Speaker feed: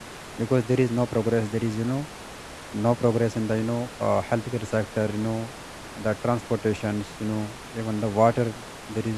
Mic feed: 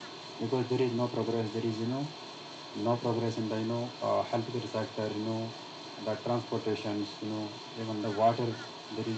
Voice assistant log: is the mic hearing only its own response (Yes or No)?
Yes